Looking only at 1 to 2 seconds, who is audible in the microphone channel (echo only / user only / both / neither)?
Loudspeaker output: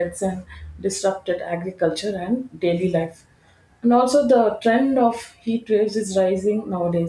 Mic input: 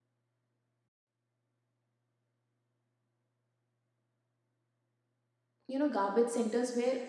neither